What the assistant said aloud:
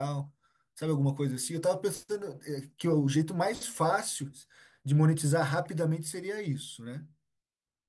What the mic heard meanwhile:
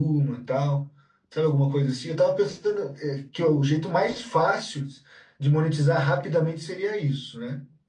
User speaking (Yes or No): No